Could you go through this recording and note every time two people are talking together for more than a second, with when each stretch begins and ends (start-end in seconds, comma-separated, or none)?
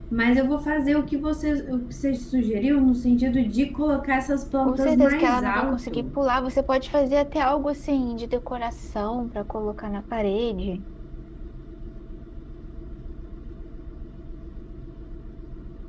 4.6-6.2